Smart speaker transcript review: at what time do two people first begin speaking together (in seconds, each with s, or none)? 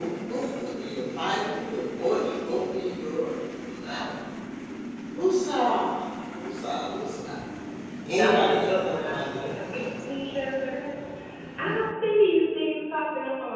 8.2 s